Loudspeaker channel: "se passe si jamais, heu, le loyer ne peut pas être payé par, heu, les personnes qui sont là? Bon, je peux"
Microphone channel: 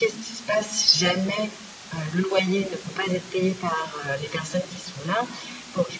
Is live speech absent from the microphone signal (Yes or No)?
Yes